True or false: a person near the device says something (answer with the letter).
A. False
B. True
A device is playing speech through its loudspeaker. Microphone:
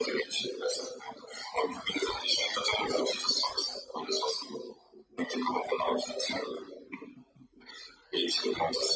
A